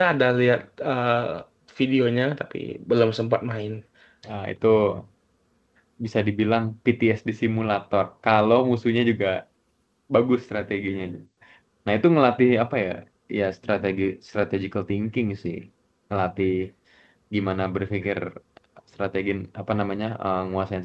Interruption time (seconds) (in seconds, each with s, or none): none